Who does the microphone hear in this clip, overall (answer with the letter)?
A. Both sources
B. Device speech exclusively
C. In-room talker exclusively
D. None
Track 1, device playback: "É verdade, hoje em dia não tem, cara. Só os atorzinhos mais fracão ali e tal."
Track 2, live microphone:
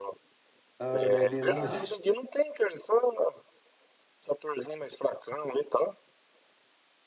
A